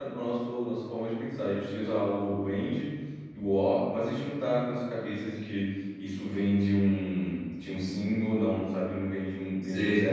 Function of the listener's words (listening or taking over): listening